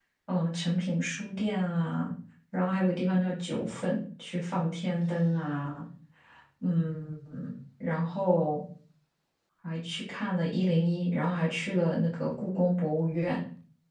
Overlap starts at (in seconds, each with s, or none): none